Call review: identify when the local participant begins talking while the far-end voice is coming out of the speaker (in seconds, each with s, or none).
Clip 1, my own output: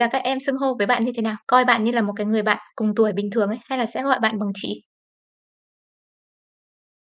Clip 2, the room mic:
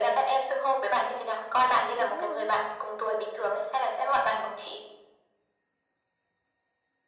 2.0 s